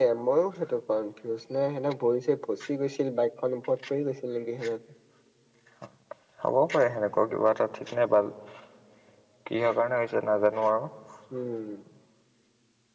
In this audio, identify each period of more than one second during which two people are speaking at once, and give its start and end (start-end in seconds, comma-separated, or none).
none